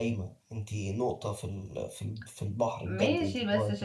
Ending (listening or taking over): taking over